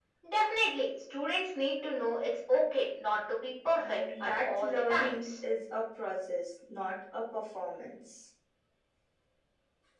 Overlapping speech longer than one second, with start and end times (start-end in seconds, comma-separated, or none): 3.7-5.3